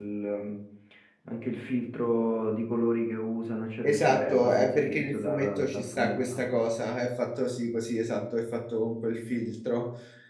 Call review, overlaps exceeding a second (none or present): present